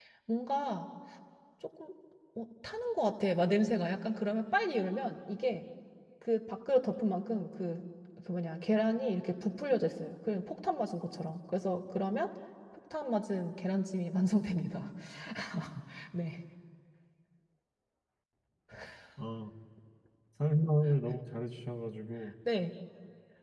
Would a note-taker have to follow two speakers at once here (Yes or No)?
No